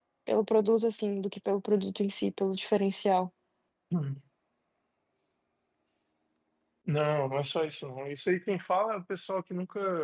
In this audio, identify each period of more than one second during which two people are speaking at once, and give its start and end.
none

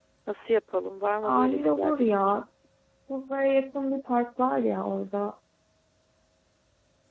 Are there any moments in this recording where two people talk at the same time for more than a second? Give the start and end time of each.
1.2-2.4

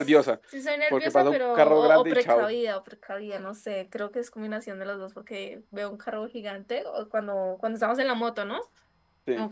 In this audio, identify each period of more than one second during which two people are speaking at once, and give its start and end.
0.9-2.5

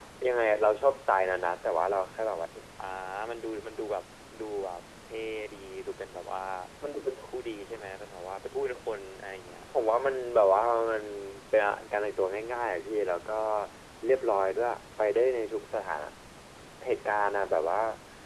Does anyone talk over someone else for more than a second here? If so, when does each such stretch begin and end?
none

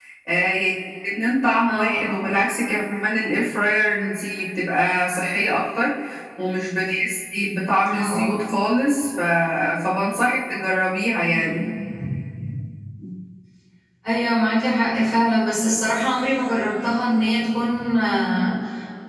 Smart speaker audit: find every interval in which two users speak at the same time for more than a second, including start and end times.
none

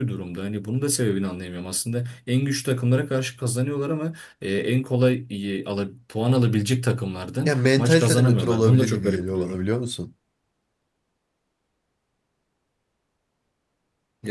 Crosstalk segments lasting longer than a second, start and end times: 7.5-9.6

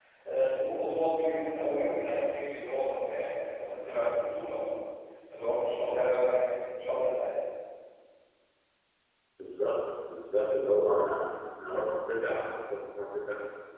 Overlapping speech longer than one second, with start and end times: none

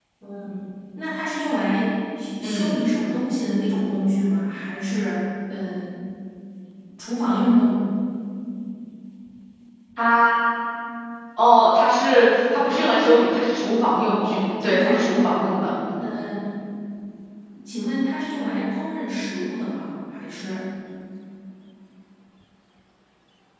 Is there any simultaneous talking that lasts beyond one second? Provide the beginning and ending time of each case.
14.2-15.4

